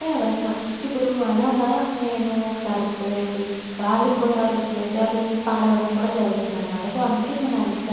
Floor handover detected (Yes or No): Yes